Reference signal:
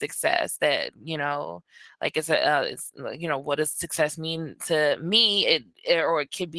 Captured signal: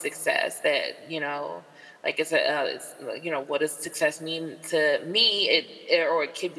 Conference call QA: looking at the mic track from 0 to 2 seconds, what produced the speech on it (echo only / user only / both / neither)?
echo only